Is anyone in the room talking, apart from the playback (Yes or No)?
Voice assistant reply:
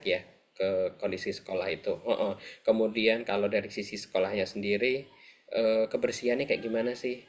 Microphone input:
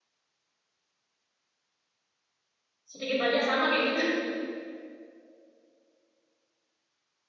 Yes